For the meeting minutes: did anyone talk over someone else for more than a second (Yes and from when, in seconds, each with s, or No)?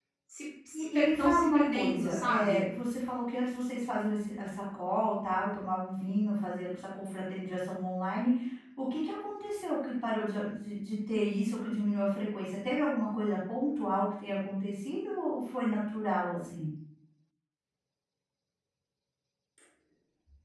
Yes, from 0.9 s